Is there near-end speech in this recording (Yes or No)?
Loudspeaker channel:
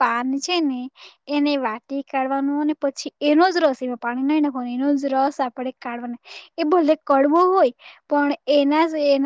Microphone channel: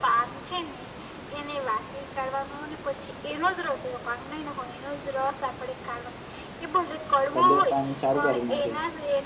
Yes